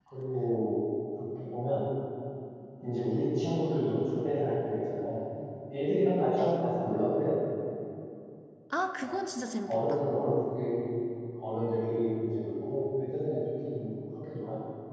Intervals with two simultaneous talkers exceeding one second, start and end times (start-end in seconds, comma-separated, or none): none